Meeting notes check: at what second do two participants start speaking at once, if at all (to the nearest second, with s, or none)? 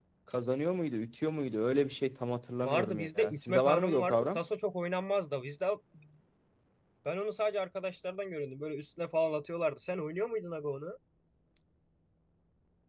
3 s